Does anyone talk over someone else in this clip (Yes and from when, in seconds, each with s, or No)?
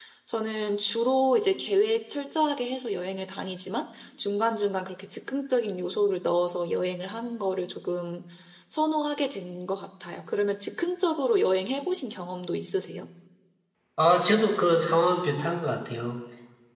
No